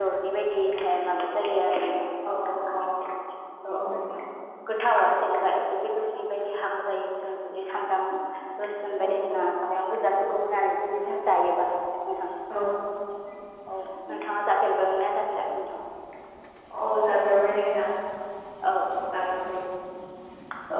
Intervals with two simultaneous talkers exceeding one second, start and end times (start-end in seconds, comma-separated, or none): none